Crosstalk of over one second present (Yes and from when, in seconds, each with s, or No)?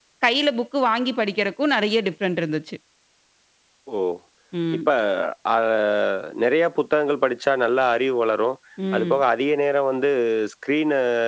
No